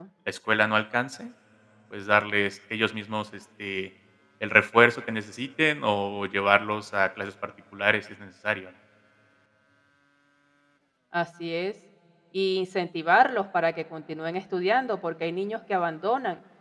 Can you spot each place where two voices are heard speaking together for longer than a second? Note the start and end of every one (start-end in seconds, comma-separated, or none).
none